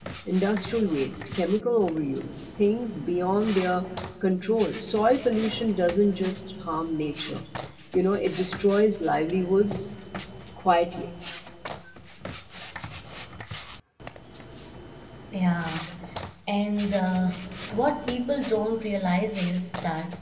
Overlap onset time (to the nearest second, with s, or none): none